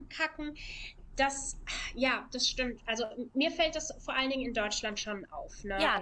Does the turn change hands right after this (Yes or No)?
No